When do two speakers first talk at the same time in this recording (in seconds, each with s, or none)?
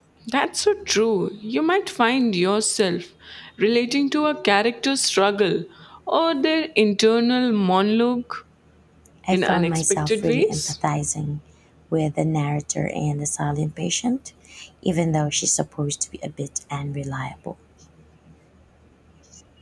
9.3 s